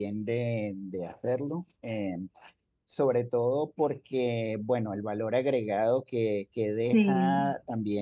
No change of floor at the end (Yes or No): Yes